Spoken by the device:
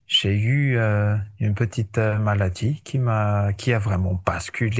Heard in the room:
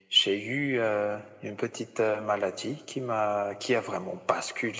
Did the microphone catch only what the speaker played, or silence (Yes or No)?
Yes